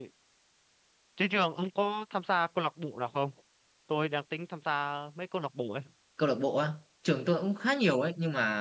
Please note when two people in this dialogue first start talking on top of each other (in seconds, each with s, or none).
none